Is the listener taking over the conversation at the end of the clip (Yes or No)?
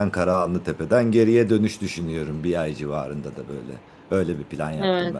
Yes